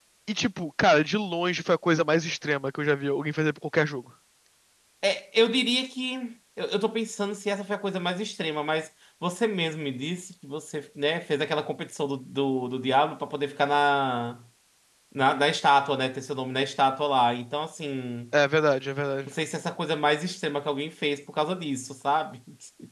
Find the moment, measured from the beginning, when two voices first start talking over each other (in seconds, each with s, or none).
none